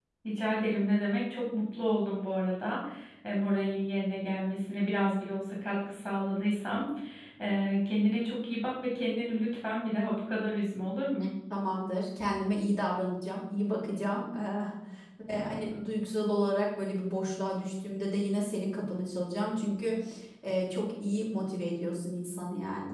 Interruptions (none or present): none